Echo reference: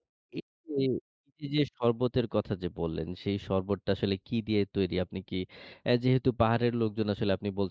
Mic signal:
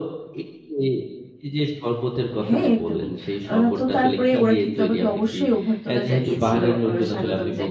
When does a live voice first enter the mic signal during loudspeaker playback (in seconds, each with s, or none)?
2.5 s